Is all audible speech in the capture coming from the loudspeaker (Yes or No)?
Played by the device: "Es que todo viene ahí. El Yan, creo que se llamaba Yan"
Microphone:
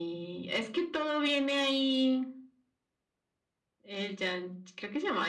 Yes